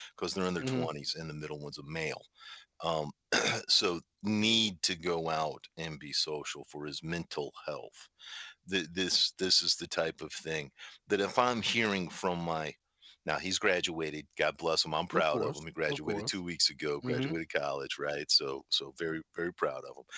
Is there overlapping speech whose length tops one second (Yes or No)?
Yes